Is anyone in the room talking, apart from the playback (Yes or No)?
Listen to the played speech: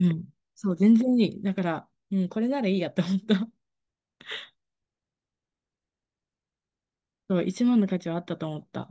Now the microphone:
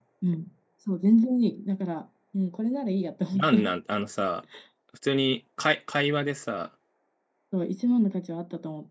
Yes